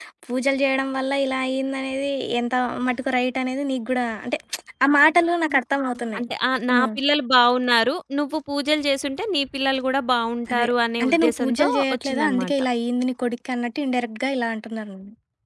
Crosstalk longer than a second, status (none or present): present